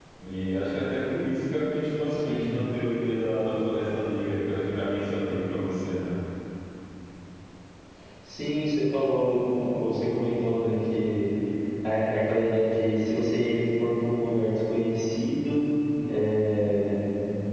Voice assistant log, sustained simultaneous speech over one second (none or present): none